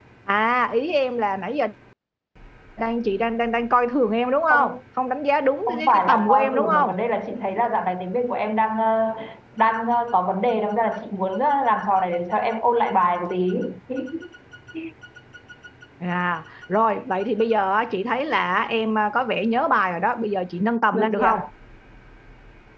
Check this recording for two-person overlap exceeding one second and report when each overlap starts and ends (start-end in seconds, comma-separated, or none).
5.7-6.9